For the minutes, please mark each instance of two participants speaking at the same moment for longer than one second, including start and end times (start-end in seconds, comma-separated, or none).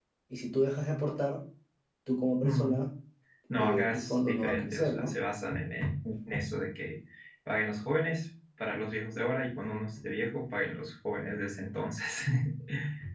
3.6-5.2